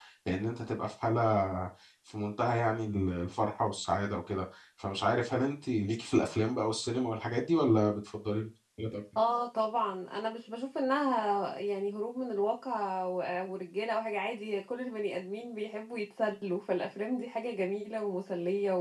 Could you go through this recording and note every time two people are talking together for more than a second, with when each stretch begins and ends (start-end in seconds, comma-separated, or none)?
none